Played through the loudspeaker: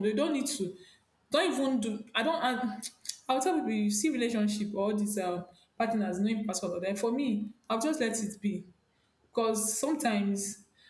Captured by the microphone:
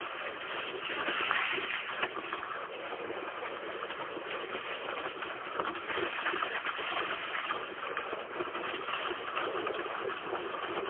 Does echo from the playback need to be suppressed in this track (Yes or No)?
No